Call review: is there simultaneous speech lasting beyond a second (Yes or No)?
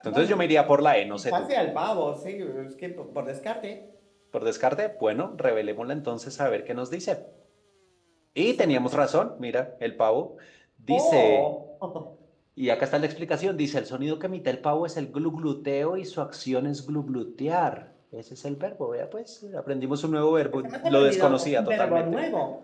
Yes